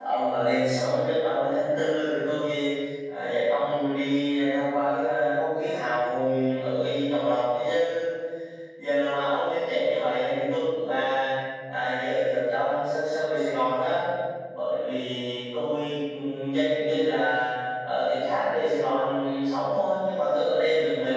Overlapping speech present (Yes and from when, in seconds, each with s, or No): No